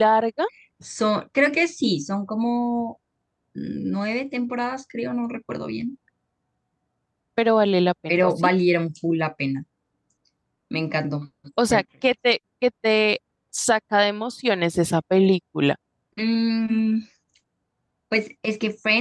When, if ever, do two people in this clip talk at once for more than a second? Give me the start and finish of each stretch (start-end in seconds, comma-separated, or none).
none